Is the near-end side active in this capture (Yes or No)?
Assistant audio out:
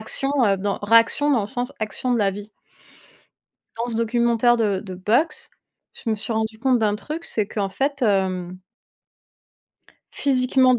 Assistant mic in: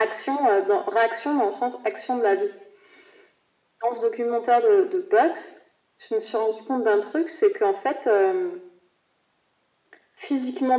No